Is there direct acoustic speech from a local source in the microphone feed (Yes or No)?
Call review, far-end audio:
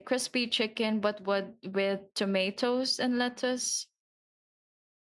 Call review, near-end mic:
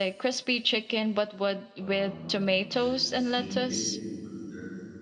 Yes